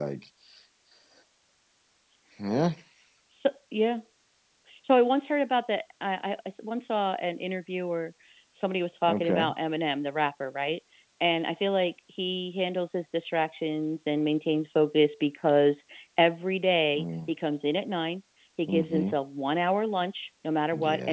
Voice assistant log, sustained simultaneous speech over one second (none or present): none